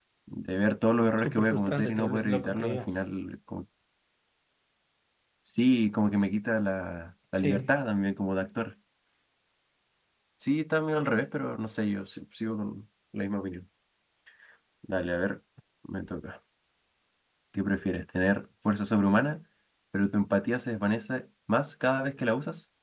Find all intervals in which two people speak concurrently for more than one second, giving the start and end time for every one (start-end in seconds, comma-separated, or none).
1.2-2.9